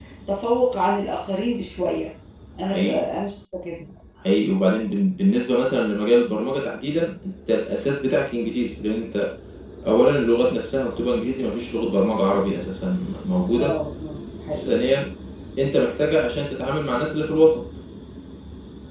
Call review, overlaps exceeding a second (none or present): none